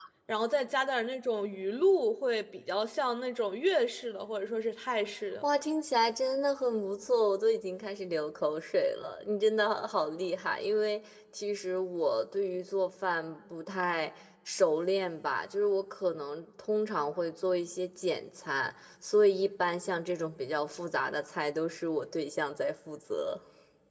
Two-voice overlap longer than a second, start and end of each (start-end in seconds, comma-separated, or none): none